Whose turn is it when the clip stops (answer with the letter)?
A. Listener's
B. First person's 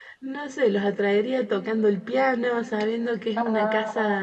B